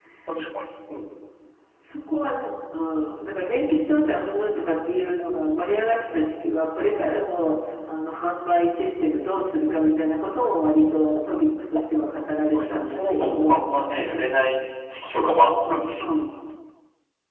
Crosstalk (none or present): present